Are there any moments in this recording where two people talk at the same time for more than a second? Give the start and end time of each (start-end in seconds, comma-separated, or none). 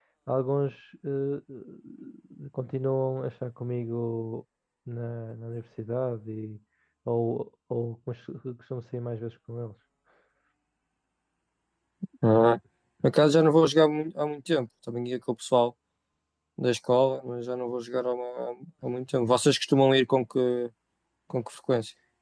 none